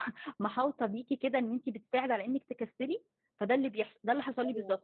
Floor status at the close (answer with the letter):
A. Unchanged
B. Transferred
A